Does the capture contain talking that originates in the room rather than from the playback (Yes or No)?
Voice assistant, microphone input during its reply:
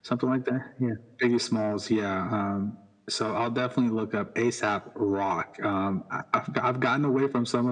No